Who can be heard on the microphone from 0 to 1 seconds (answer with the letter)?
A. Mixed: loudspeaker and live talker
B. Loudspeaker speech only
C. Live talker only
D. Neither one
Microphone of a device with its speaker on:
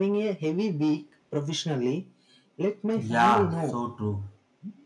B